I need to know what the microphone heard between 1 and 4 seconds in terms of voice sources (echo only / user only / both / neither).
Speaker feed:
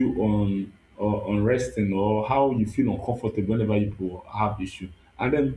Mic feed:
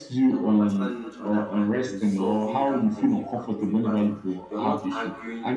both